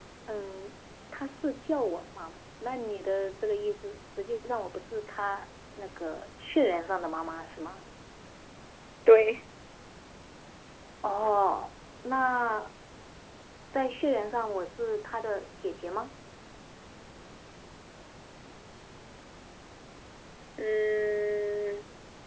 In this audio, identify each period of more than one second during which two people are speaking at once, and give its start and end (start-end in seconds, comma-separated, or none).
none